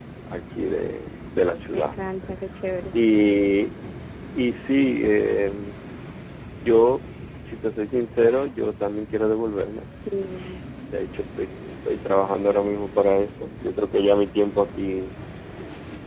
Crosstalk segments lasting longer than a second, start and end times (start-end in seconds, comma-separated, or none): none